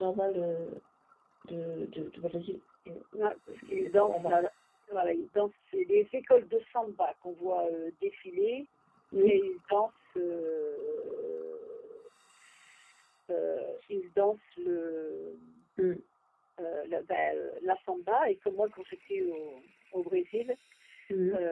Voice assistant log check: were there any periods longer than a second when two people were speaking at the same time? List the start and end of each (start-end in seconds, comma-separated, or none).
3.1-4.4